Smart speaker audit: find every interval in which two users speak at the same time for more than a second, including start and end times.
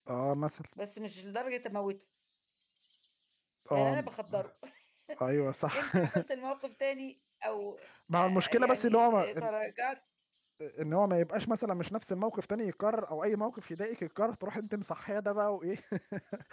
8.1-9.5

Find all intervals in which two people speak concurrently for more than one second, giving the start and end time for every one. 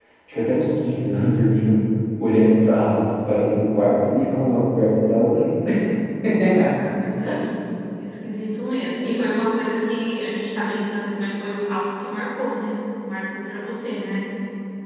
none

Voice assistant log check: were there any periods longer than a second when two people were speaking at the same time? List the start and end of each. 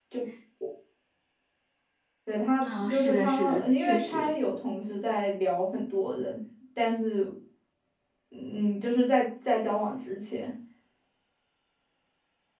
2.6-4.3

